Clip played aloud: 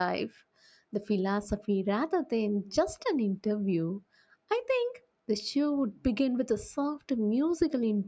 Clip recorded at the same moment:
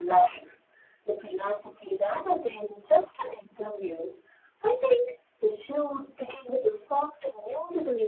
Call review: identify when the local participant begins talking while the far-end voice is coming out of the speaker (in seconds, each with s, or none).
none